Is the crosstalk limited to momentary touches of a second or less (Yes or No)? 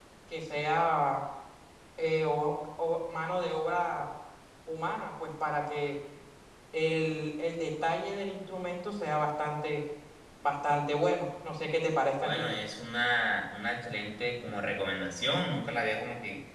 Yes